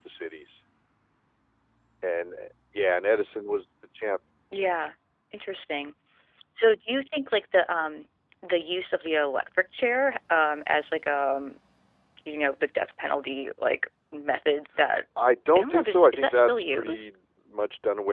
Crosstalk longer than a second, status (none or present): present